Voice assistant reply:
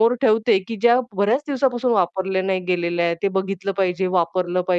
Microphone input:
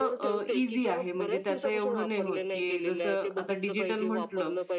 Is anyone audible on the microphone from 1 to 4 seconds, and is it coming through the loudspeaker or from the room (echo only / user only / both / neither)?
both